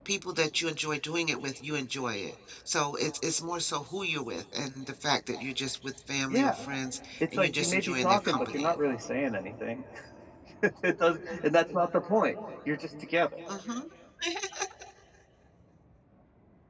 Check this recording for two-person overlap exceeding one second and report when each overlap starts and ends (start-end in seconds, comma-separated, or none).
7.2-8.8